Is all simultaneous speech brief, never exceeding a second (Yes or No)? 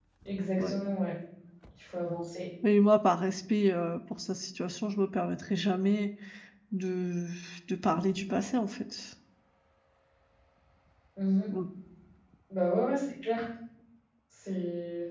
Yes